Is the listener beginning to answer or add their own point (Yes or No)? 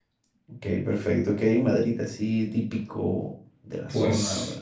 Yes